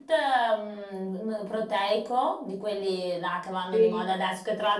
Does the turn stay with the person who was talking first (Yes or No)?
Yes